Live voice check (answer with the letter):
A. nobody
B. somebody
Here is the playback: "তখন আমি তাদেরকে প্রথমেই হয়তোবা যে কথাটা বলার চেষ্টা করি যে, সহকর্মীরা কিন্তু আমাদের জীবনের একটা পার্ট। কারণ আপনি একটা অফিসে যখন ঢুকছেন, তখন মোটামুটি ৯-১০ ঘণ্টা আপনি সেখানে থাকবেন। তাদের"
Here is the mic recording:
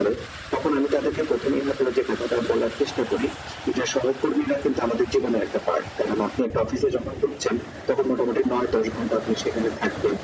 A